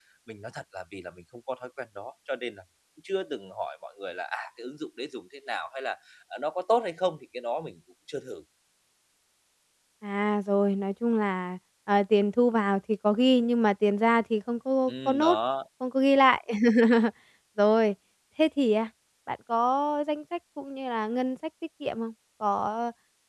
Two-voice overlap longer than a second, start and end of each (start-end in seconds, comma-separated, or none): none